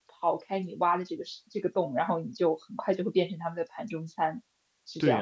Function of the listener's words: taking over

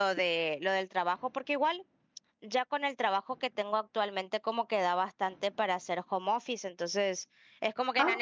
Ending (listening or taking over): listening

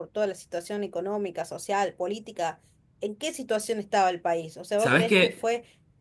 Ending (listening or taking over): listening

